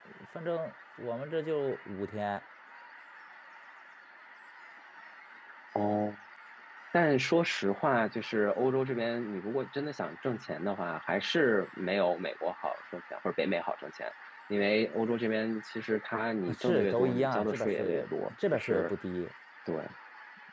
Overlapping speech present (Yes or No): Yes